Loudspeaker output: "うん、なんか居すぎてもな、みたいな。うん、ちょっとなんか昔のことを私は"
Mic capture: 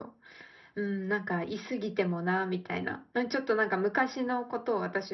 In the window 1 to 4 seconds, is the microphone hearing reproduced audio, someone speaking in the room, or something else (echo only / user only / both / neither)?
echo only